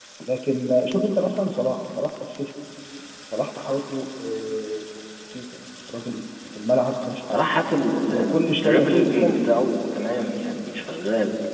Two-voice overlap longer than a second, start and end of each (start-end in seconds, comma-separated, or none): 8.0-9.3